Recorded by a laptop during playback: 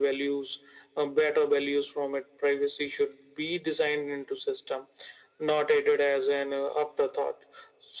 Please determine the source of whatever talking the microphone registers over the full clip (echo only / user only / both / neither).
echo only